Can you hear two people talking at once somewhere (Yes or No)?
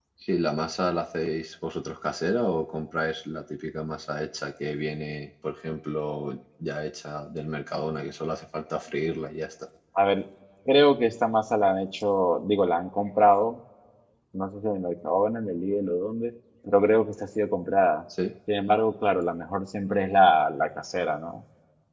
No